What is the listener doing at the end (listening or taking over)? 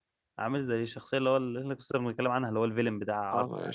taking over